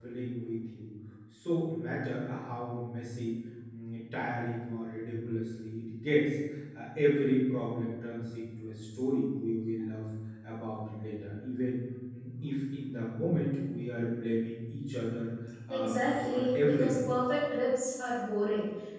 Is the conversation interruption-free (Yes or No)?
No